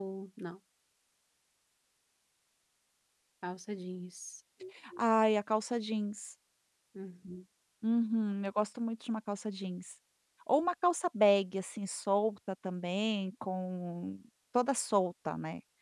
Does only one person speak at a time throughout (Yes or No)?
Yes